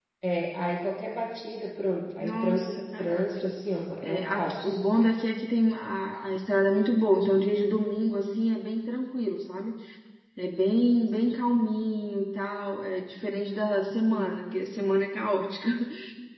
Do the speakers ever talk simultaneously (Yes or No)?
Yes